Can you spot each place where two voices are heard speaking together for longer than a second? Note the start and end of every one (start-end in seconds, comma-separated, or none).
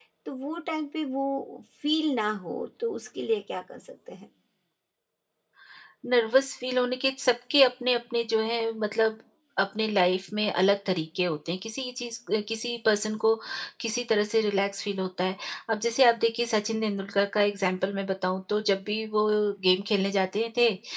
none